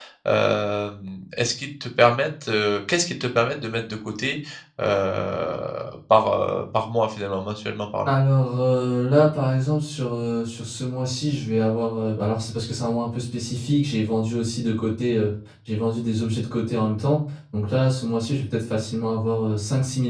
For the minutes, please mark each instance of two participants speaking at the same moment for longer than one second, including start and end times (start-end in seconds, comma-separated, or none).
none